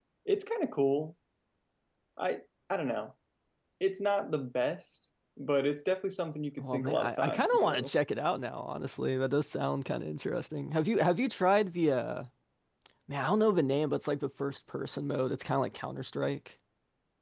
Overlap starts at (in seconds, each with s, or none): 6.6 s